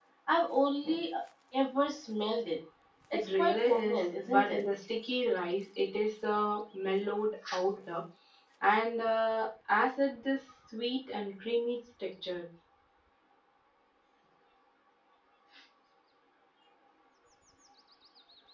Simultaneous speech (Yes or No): Yes